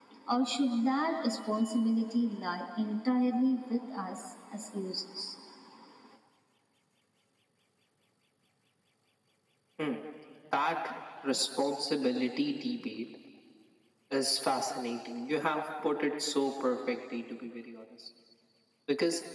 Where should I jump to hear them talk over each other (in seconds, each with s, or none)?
none